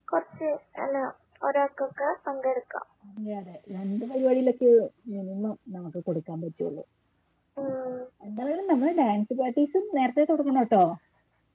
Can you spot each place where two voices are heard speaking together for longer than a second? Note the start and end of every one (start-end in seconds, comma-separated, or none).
none